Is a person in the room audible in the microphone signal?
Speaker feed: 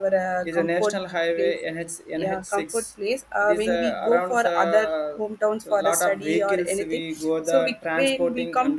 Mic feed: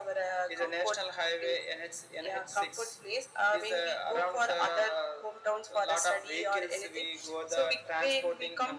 No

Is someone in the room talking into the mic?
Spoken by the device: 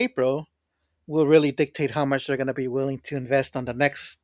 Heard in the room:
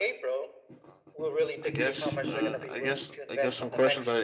Yes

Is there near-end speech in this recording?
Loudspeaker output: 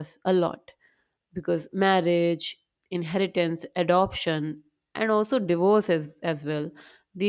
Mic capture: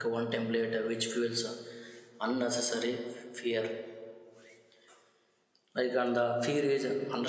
Yes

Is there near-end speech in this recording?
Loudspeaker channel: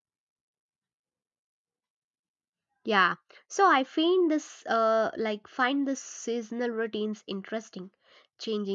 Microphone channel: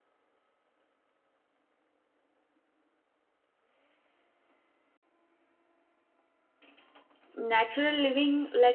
Yes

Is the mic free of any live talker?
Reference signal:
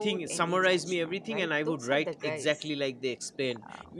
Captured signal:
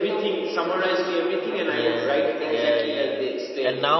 No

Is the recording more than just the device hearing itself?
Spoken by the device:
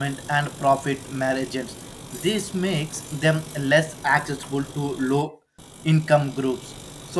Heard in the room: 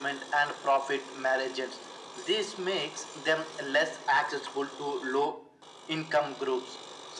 No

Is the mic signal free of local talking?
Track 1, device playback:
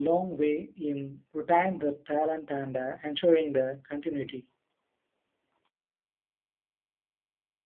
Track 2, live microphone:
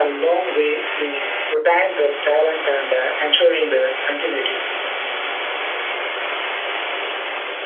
Yes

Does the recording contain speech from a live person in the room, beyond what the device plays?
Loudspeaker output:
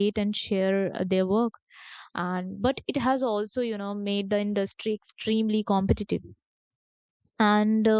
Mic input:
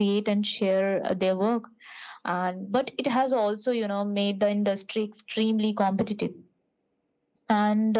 No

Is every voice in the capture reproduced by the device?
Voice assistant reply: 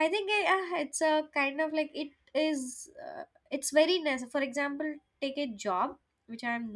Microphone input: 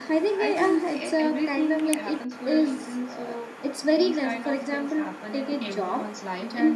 No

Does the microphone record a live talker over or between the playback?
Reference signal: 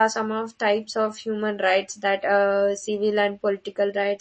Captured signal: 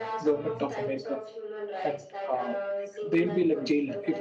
Yes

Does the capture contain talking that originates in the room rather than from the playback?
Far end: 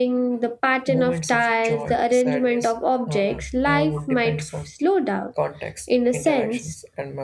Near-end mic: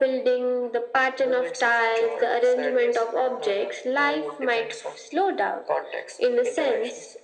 No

